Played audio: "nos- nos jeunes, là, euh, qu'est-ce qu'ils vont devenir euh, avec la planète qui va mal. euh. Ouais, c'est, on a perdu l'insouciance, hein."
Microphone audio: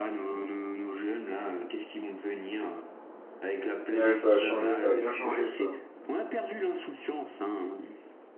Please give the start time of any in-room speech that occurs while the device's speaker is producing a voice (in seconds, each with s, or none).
3.9 s